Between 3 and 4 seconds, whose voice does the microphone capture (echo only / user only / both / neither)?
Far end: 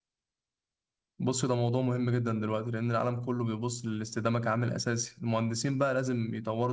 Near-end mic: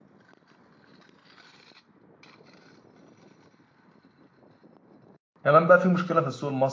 neither